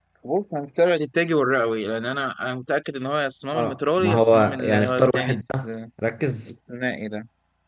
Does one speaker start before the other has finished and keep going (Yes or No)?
Yes